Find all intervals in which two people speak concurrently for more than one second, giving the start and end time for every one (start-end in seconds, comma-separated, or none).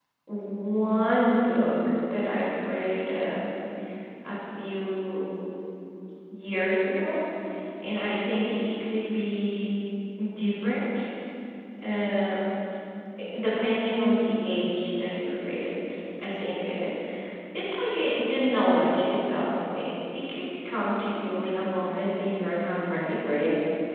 none